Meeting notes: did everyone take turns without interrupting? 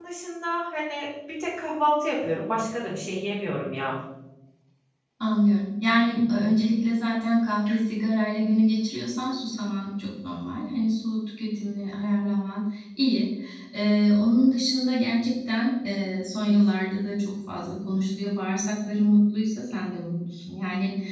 Yes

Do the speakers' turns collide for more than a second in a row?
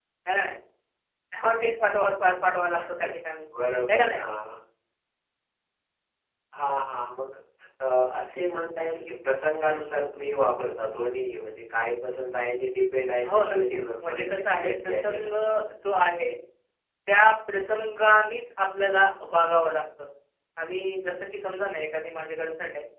Yes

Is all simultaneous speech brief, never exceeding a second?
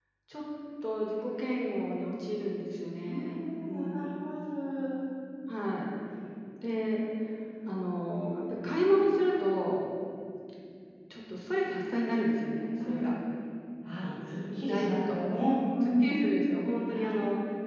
No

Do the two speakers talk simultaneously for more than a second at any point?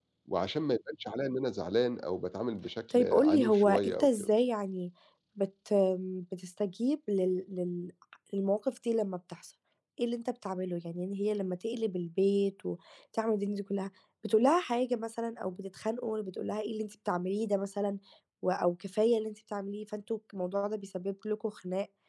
Yes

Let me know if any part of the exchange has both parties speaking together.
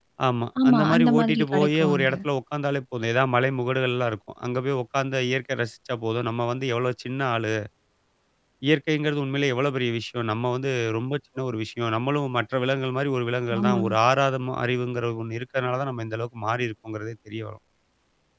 Yes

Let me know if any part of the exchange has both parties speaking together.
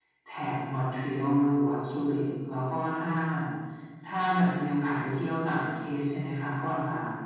No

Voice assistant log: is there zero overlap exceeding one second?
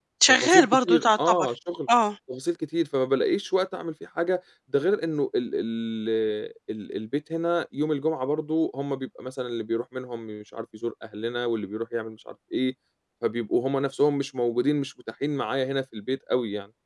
No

